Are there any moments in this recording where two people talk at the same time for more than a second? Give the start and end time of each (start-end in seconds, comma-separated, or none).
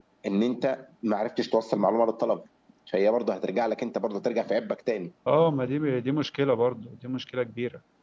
none